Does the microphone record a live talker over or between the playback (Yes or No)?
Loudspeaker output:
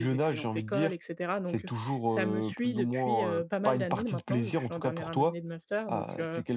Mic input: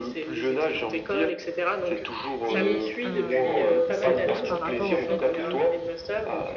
Yes